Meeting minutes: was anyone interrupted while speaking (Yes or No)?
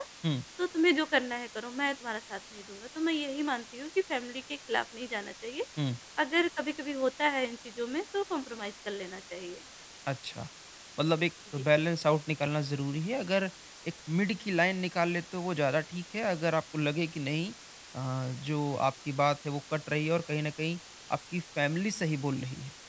No